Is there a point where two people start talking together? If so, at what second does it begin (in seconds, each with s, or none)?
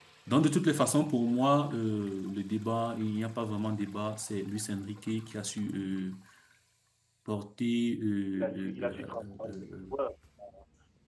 8.3 s